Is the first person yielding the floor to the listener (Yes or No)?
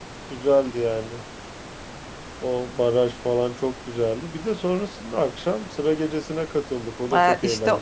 Yes